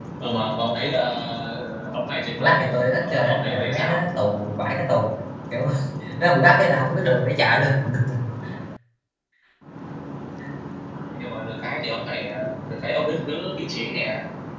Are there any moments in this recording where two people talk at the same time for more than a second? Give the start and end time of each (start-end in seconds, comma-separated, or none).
2.4-4.0